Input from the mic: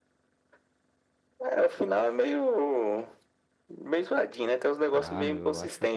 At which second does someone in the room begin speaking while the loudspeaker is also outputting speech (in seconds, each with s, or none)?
4.9 s